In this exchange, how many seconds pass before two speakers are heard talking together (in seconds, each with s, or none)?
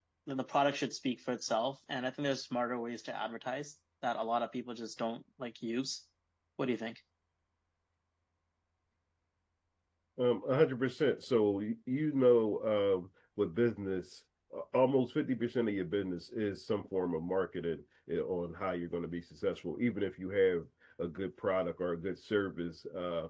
none